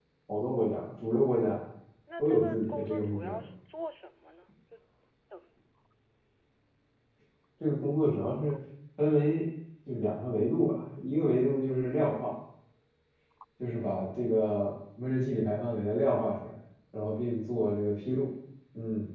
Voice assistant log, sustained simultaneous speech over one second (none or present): present